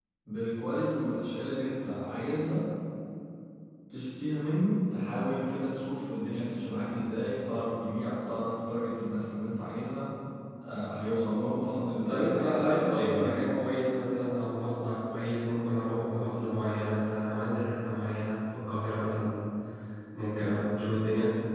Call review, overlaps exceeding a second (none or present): present